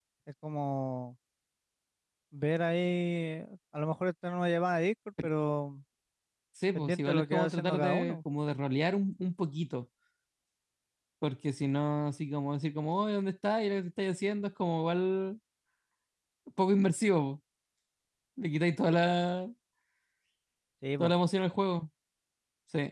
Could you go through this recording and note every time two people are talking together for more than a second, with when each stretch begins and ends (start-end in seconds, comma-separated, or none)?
6.7-8.2